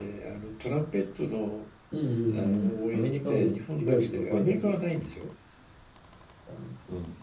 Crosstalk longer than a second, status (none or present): present